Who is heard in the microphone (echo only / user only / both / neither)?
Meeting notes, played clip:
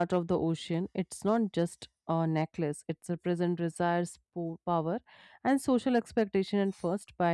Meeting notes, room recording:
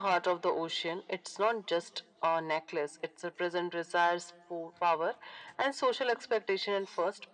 echo only